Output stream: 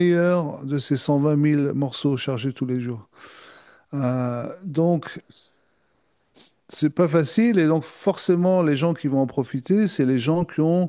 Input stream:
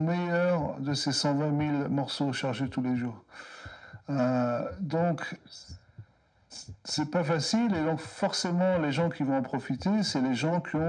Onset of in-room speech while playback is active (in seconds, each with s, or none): none